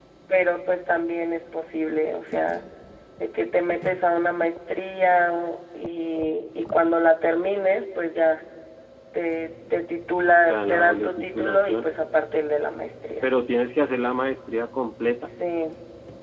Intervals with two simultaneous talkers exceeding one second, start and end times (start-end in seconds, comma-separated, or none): 10.5-11.9